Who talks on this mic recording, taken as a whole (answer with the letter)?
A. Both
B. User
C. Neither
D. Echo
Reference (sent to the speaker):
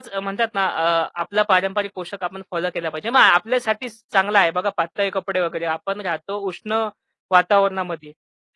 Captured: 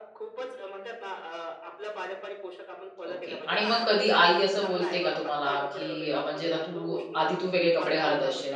A